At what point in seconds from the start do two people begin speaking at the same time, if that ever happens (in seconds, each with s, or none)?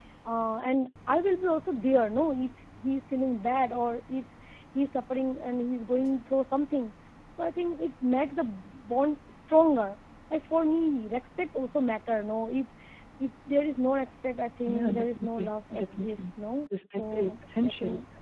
14.7 s